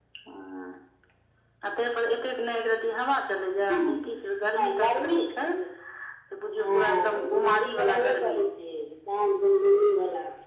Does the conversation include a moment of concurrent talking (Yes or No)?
Yes